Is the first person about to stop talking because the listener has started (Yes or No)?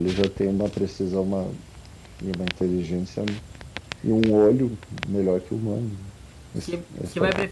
Yes